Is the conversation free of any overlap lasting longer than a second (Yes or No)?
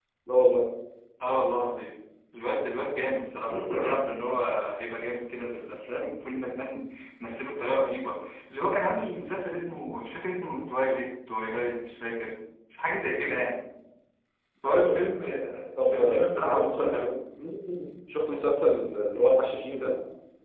No